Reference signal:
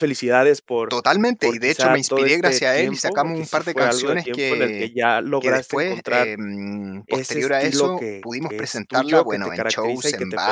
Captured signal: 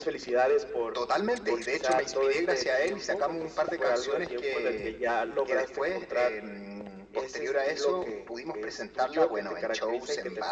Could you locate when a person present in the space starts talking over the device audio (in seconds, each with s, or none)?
none